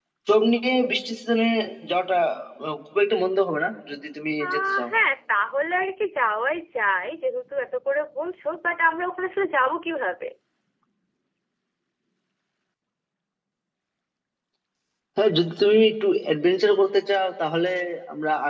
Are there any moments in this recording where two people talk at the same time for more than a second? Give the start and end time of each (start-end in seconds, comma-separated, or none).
none